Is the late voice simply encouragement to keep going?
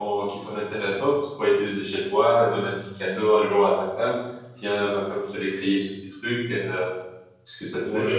No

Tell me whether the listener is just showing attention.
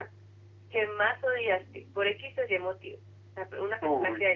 Yes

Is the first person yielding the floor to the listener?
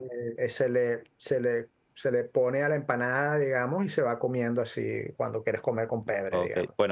Yes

